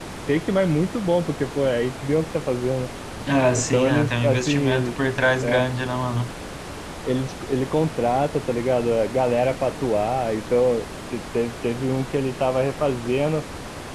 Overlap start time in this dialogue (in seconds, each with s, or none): 3.5 s